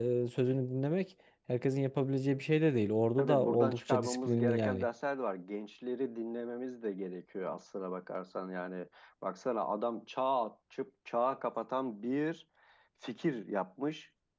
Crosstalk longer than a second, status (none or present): present